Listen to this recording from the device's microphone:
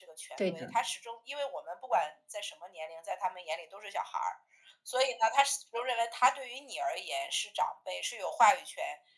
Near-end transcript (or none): 对的，